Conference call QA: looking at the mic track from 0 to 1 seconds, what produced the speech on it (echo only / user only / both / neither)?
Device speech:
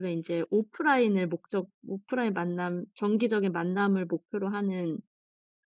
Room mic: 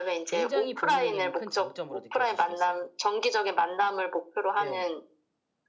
both